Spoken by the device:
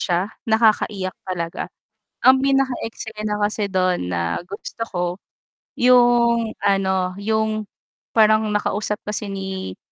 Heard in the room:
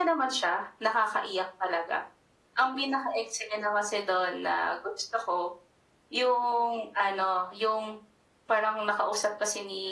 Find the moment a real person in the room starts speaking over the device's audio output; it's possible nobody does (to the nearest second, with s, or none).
none